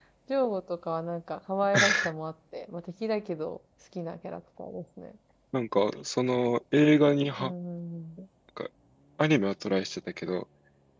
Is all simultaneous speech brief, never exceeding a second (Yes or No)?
Yes